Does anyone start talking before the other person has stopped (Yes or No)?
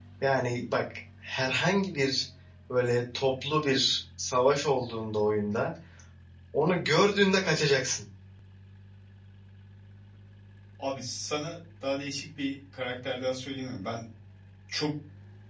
No